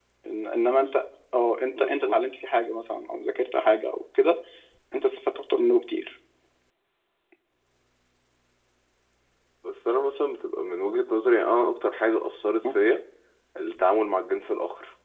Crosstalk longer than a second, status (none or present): none